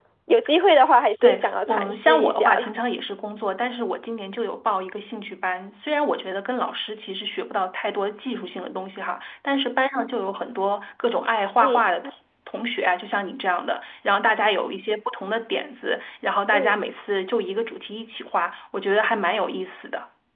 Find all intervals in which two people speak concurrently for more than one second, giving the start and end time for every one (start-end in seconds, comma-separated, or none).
1.2-2.7